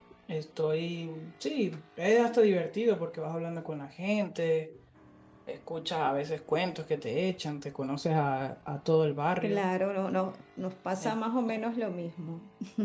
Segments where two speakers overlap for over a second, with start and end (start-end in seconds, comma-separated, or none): none